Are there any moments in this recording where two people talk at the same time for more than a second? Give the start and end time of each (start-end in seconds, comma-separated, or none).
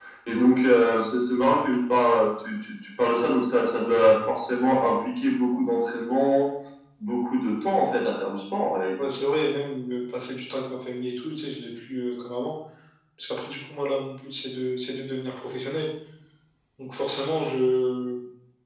none